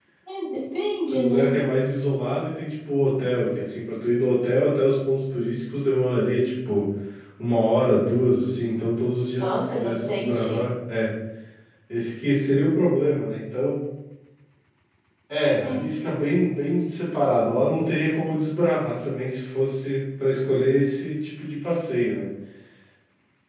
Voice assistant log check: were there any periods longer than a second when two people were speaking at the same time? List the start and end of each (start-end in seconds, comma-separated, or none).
9.4-10.6